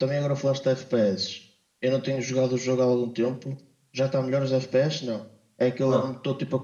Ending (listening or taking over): listening